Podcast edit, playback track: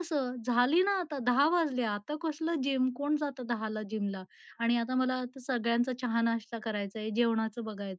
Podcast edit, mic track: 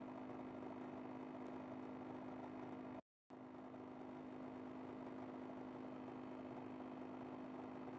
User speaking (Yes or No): No